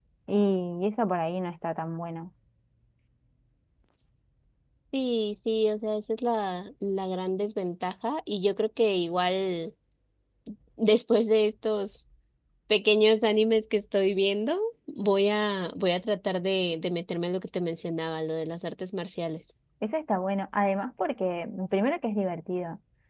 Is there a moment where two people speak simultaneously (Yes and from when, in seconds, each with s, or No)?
No